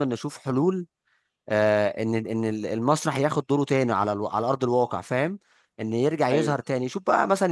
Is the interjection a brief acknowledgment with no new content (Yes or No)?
Yes